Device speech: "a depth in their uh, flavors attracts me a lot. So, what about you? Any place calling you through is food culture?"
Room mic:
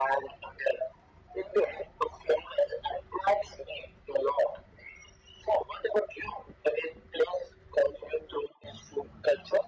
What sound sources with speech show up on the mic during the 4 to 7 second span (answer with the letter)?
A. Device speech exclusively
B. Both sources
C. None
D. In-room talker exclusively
A